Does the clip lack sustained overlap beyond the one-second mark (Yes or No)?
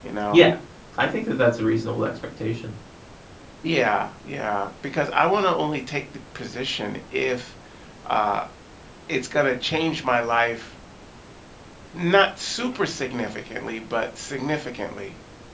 Yes